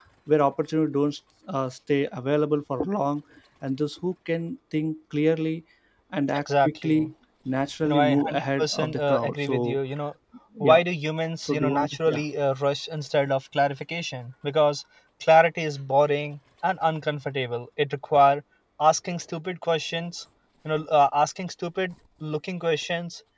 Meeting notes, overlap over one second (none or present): present